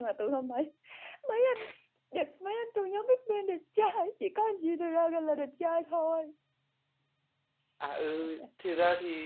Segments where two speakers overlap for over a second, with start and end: none

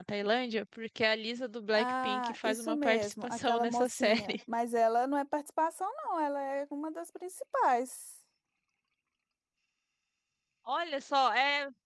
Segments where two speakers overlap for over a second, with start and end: 1.7-4.4

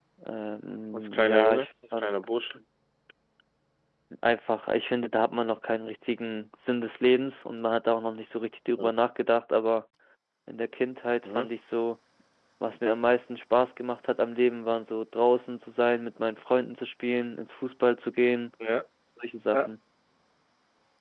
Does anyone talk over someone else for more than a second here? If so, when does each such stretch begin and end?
0.9-2.2

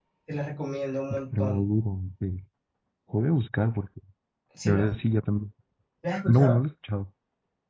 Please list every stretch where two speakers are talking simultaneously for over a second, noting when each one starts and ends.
none

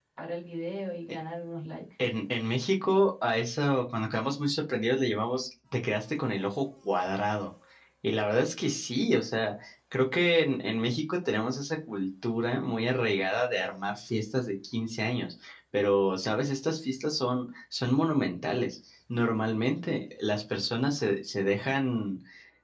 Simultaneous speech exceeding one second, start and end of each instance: none

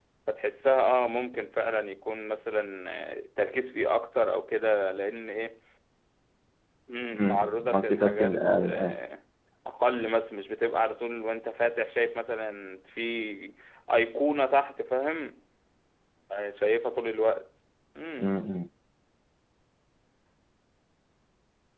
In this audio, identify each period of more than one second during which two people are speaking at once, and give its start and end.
7.1-9.0

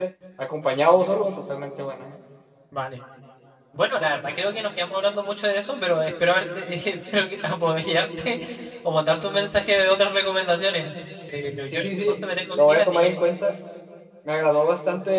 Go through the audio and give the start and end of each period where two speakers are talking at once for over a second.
11.7-13.2

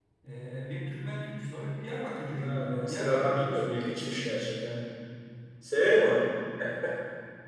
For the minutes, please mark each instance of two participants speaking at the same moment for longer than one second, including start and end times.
2.4-3.8

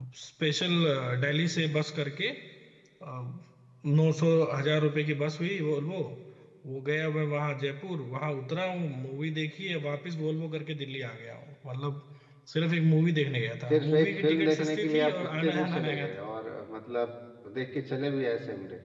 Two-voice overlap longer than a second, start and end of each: 13.7-16.1

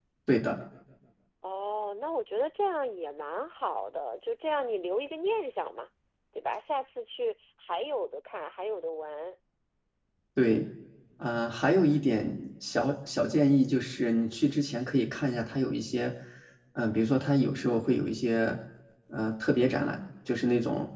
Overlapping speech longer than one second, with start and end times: none

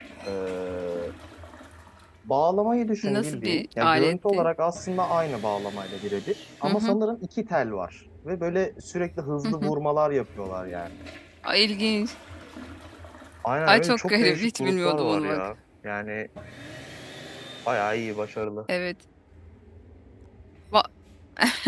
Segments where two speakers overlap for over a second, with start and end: 3.0-4.5, 13.7-15.4

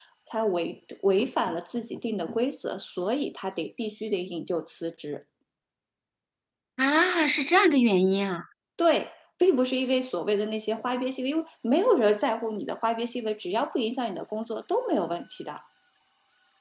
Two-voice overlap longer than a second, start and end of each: none

